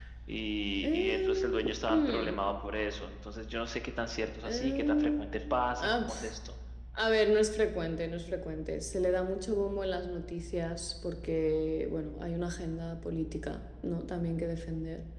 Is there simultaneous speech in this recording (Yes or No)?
Yes